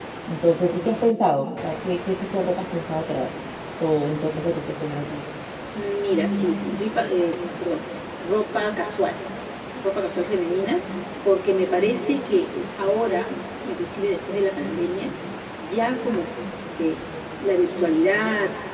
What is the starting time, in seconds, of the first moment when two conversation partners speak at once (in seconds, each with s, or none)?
none